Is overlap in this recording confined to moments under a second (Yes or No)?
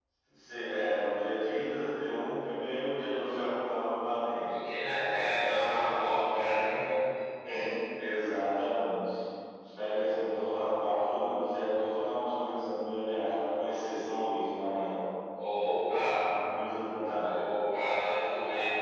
No